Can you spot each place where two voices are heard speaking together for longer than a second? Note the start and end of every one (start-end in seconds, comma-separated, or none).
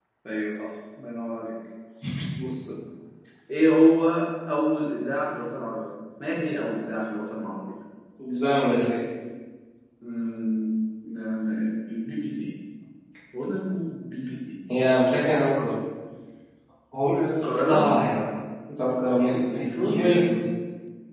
19.1-20.3